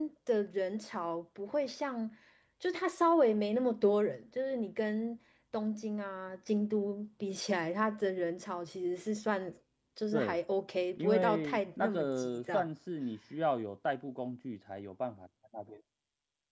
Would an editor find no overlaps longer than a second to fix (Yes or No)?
No